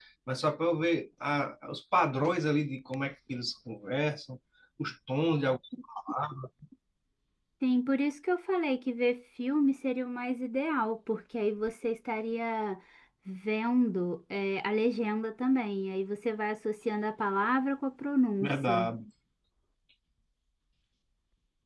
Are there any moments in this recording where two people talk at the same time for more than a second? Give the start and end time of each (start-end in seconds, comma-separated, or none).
none